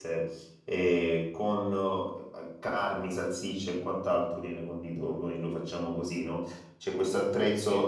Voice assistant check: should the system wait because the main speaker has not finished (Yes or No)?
Yes